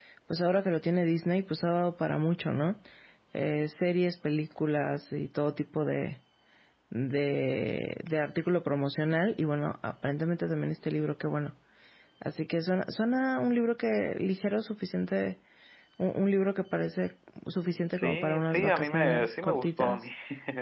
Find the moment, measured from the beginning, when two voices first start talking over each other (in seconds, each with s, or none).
17.9 s